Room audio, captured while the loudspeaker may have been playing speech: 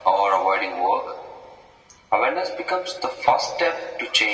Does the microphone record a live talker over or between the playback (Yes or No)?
No